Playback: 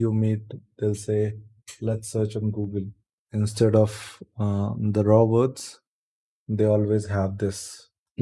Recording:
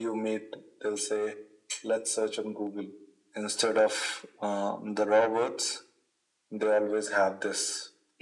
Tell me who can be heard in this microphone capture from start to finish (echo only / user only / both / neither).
echo only